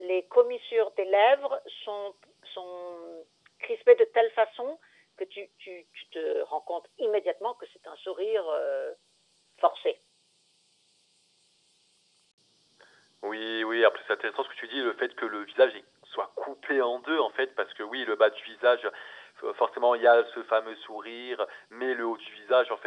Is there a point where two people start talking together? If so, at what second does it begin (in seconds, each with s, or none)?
none